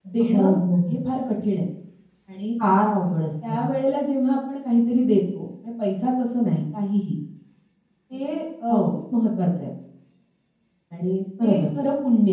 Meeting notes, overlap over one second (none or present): none